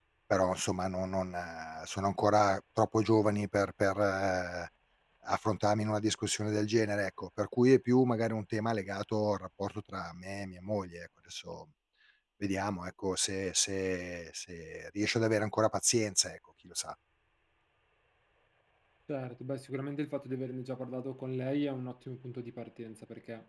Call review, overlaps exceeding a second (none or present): none